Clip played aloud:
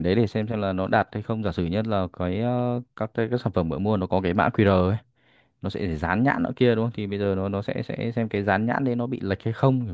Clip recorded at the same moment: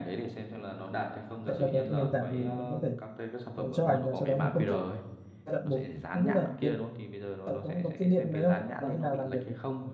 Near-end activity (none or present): present